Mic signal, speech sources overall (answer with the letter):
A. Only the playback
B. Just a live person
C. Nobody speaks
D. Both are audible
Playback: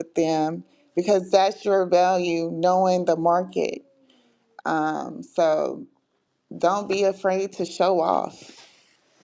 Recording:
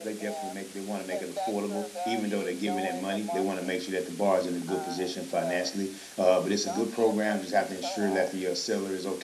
D